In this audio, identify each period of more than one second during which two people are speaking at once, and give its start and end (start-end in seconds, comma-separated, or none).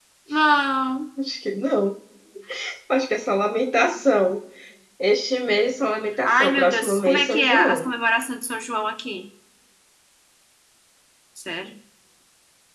6.2-7.9